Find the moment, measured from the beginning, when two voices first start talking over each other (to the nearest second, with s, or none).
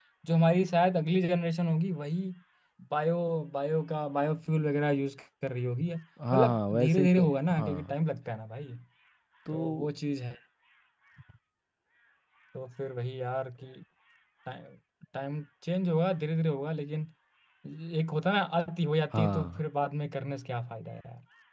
6 s